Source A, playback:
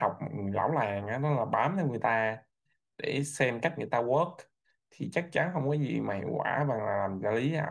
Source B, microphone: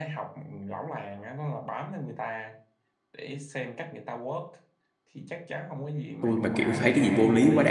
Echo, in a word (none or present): present